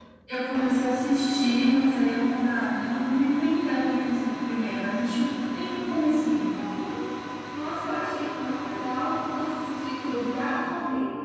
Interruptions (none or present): none